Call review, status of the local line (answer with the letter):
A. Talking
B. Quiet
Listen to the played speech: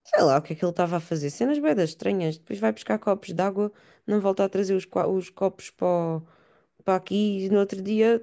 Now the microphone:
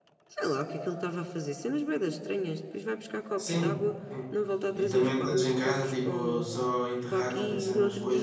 A